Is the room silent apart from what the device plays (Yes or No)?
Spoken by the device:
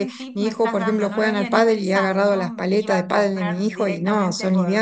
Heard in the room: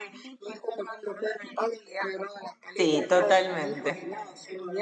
No